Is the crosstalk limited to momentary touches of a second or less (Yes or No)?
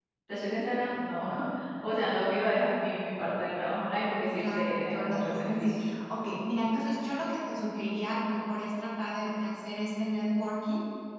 No